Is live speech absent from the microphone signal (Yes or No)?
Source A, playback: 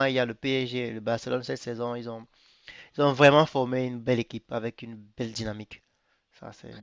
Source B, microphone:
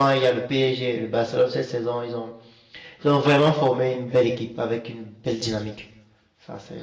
Yes